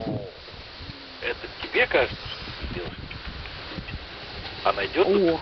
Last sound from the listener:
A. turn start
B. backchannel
B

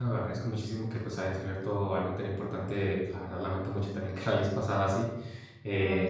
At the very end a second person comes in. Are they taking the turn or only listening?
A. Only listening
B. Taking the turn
A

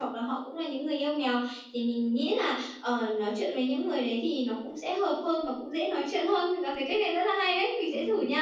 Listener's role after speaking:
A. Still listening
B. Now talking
B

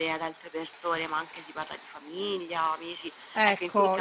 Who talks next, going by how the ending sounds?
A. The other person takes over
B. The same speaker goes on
A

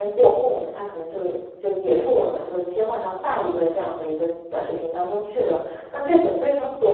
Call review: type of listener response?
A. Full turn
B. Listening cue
B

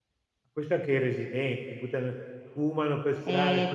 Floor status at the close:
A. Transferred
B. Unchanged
A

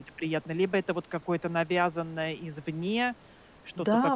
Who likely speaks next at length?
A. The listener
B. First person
A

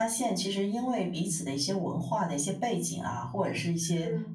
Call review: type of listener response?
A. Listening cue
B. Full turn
A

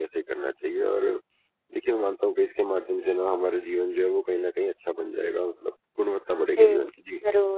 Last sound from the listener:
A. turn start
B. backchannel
A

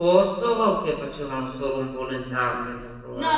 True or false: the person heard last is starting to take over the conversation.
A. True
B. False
A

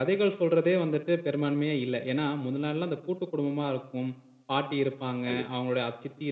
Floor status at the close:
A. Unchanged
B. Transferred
A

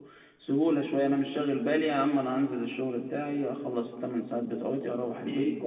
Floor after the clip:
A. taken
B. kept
A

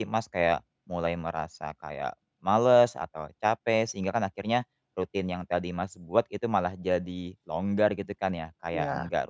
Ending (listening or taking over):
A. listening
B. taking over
A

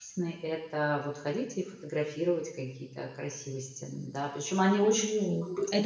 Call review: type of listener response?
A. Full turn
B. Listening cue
A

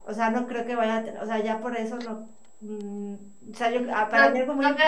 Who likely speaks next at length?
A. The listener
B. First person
A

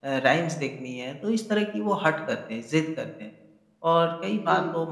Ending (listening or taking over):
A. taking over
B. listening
B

